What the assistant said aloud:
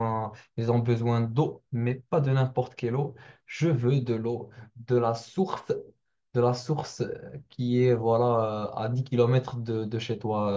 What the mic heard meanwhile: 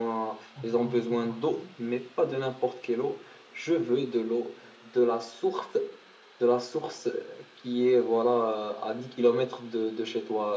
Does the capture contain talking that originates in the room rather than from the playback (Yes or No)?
Yes